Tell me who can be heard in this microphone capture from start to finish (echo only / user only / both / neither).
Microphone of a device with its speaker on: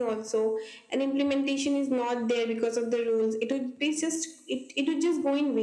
echo only